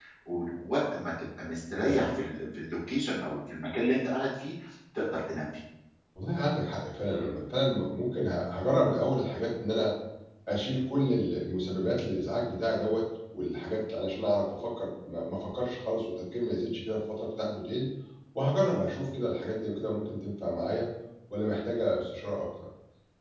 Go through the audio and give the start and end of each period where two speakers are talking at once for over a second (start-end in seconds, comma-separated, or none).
none